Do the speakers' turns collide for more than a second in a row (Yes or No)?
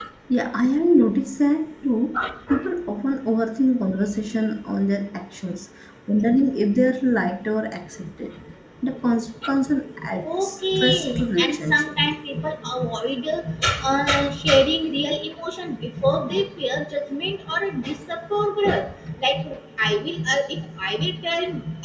Yes